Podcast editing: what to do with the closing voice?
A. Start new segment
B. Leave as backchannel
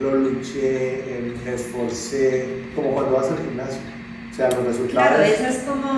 A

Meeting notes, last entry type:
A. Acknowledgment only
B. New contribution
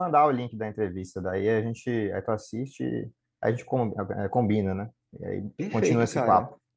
B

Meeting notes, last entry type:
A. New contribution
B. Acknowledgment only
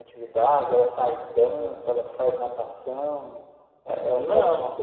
B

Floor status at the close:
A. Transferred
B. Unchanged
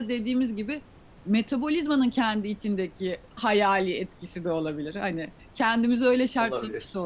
B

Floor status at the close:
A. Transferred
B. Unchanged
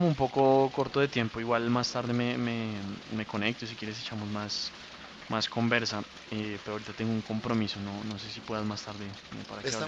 A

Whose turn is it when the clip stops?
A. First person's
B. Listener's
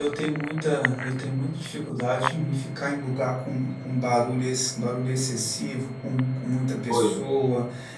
A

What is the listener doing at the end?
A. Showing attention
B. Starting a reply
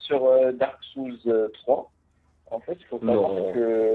A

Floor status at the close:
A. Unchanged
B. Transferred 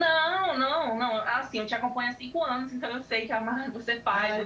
B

